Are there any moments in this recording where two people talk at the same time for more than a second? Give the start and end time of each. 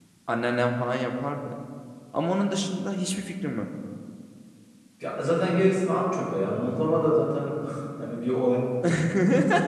none

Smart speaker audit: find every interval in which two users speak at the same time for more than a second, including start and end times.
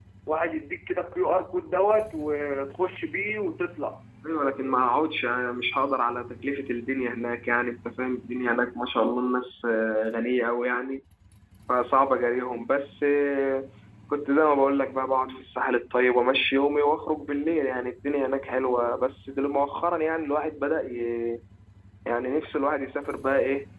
none

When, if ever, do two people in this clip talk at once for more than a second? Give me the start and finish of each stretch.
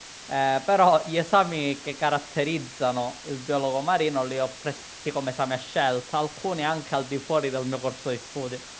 none

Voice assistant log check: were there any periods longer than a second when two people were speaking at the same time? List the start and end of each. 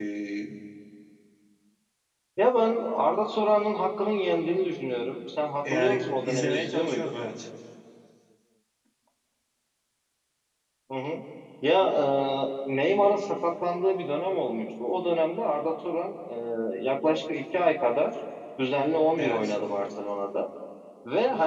5.7-7.2

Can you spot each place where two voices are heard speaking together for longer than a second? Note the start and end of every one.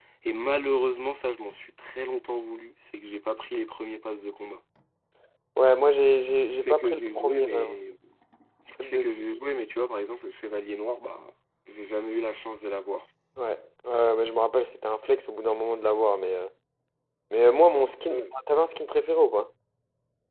6.5-7.7

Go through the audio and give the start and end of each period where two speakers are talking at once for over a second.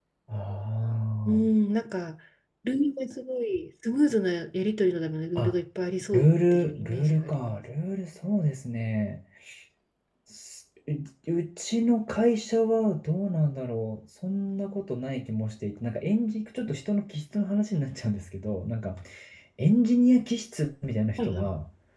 6.1-7.6

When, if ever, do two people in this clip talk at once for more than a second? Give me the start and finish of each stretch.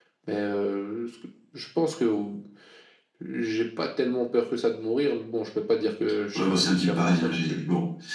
6.3-7.6

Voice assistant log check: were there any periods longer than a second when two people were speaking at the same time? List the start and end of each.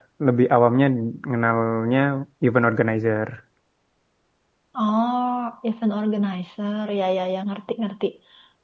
none

